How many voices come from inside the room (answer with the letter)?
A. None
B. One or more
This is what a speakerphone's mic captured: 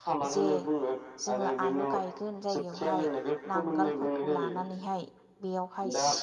B